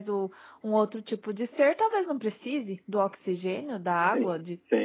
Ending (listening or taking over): taking over